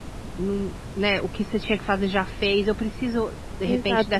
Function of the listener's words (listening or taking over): taking over